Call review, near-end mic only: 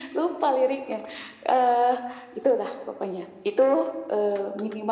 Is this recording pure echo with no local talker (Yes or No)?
Yes